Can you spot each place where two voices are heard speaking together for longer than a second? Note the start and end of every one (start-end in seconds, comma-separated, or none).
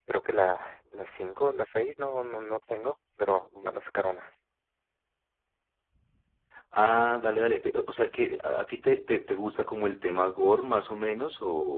none